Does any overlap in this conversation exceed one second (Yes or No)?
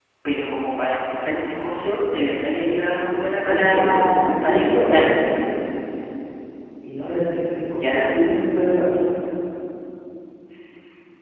Yes